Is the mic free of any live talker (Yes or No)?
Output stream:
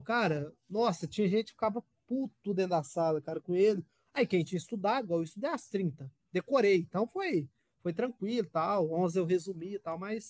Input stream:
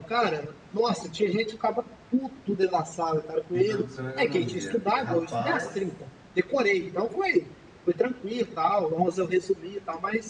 No